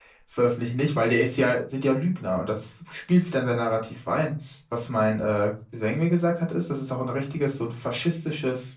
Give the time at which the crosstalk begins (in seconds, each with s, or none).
none